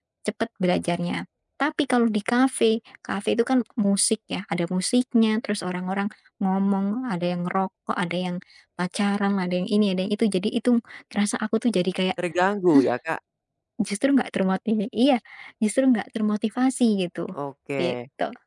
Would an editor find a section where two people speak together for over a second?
No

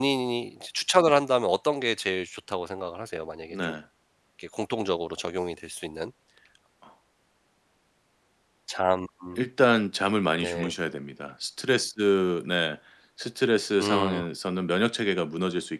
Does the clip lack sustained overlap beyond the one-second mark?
Yes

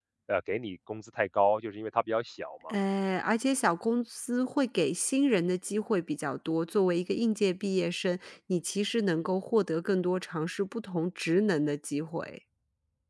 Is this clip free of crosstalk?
Yes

